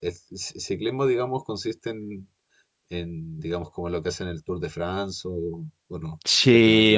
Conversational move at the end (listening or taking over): taking over